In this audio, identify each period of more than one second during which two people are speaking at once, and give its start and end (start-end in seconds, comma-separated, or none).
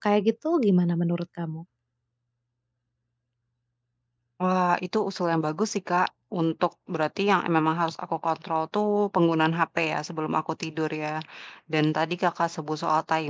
none